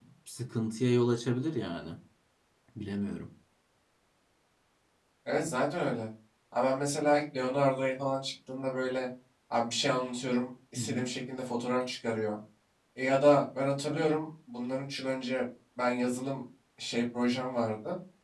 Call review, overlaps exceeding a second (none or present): none